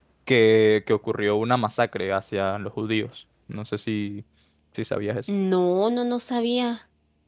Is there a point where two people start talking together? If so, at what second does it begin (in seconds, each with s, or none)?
none